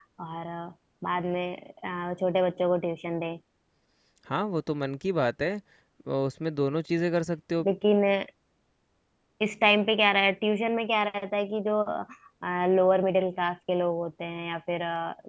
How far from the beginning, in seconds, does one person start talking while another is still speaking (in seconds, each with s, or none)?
none